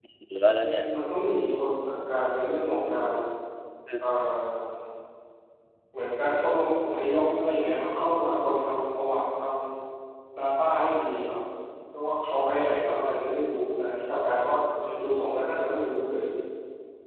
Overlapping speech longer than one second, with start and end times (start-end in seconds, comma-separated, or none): none